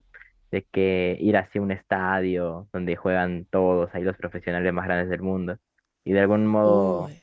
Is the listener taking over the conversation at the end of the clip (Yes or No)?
No